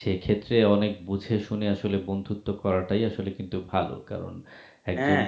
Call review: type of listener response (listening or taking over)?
listening